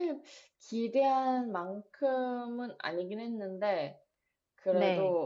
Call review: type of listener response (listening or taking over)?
listening